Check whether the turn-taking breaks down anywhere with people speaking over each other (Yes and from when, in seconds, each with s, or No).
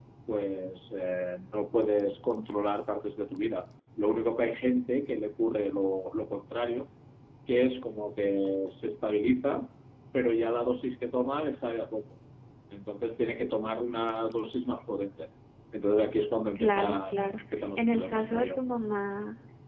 Yes, from 16.6 s